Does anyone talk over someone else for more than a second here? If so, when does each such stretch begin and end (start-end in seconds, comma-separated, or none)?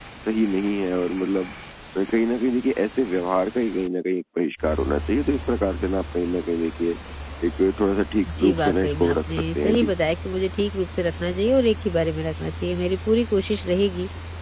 8.3-9.9